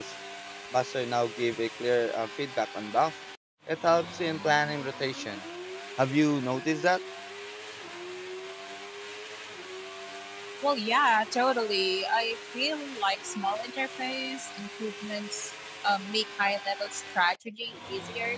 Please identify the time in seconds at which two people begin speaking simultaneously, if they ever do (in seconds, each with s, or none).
none